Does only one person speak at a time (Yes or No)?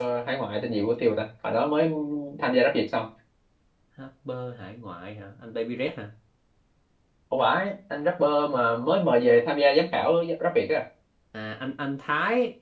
Yes